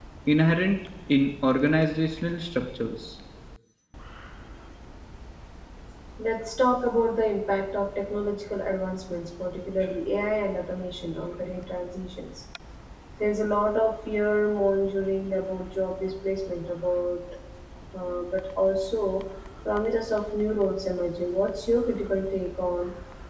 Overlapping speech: No

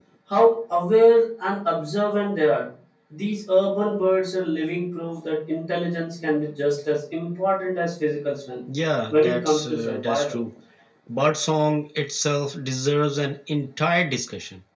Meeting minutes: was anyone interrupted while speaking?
Yes, from 9.1 s

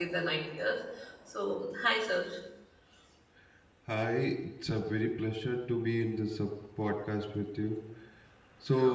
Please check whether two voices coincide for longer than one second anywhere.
No

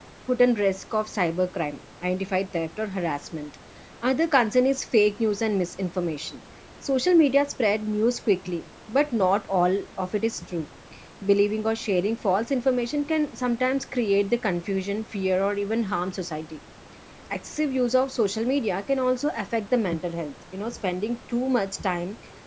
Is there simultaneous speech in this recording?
No

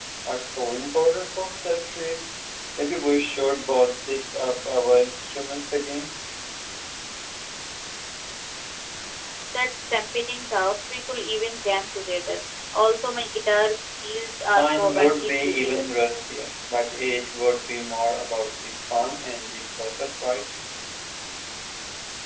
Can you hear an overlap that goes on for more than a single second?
Yes, from 14.5 s

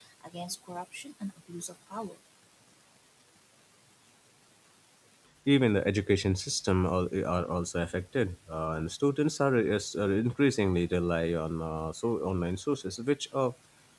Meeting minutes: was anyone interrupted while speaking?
No

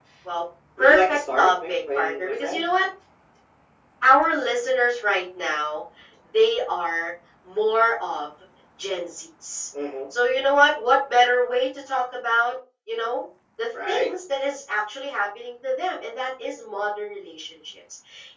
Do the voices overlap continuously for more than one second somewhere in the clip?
Yes, from 0.8 s

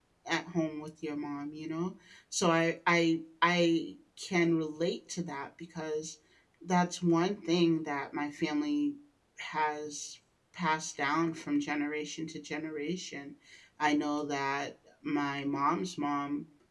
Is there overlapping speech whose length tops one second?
No

